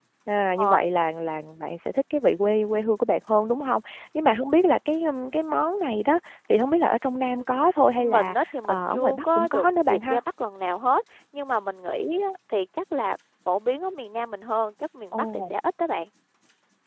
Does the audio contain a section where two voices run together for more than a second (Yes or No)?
Yes